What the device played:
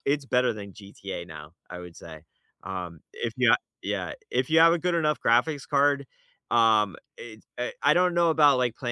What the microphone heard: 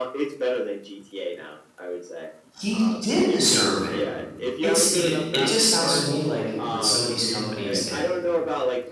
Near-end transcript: He did deserve it. It's you kn it just sounds to me like with some of these companies that, uh,

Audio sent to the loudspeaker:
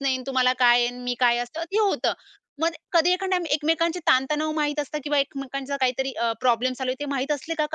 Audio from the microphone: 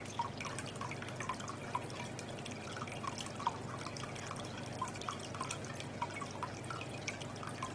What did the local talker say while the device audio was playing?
none

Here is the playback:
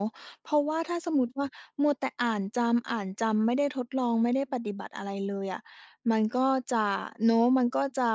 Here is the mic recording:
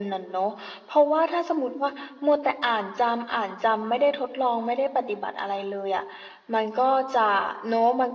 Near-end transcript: none

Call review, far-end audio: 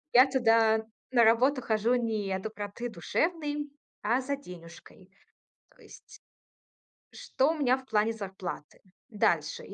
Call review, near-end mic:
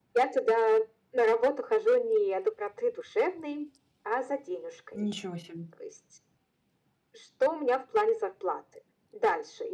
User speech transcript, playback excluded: Ничего себе.

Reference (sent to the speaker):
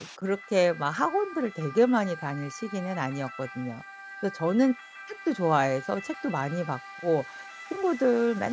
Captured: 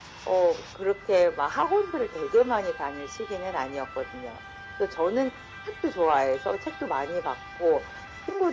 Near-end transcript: none

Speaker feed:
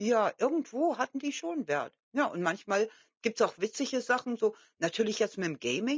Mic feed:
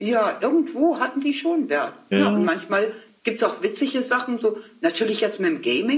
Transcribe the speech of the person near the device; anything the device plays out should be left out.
ja.

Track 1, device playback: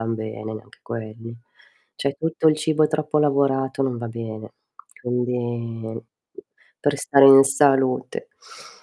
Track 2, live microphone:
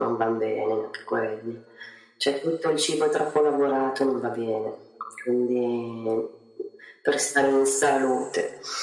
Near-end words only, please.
none

